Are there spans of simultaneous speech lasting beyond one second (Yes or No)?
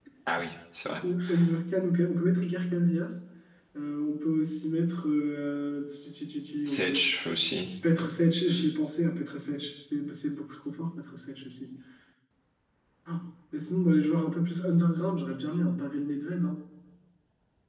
No